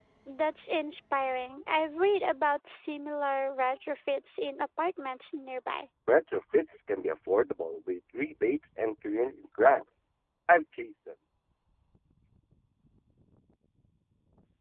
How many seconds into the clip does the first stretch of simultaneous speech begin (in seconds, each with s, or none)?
none